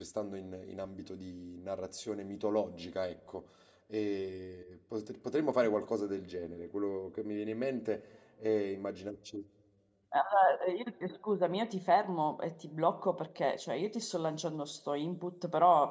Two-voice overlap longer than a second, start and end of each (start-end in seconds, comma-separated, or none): none